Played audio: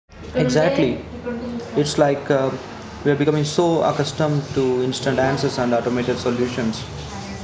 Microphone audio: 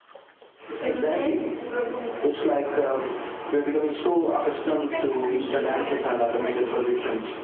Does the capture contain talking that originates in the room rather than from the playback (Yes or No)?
Yes